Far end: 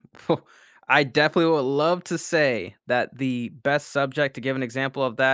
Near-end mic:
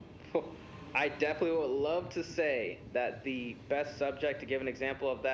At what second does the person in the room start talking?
none

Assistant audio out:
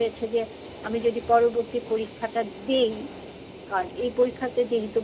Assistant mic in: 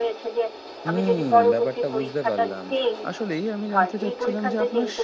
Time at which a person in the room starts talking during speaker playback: 1 s

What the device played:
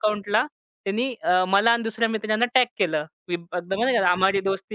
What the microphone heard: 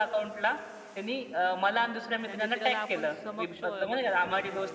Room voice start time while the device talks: 2 s

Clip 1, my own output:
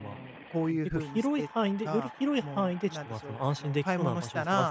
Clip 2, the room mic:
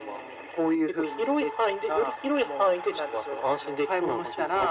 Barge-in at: none

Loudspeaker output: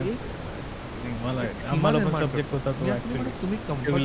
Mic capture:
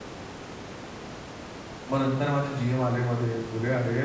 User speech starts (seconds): 2 s

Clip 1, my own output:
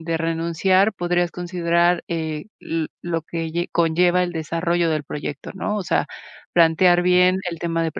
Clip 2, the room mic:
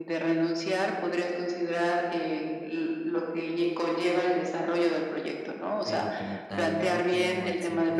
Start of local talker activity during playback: 6 s

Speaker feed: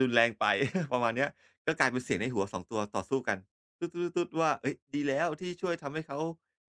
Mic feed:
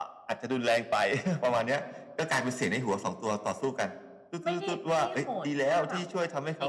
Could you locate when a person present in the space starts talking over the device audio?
4 s

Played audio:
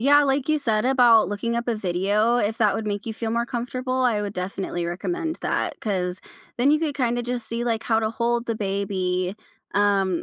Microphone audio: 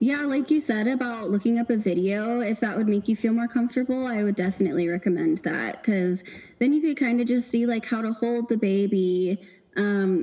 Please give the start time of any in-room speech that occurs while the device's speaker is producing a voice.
none

